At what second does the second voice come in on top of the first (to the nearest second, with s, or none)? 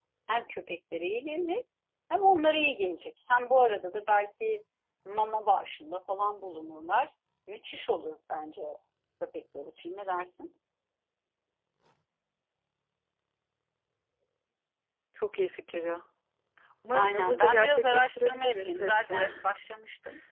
17 s